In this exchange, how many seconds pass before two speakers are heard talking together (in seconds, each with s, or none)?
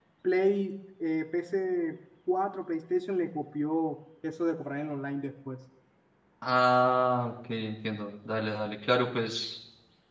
none